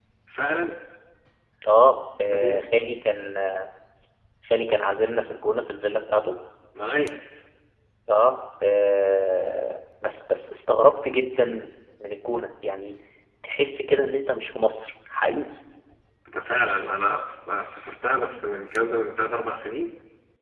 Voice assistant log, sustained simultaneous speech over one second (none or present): none